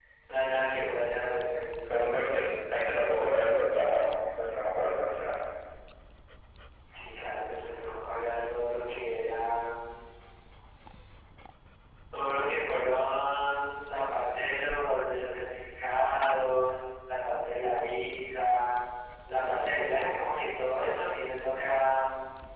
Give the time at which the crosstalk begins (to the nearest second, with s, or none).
none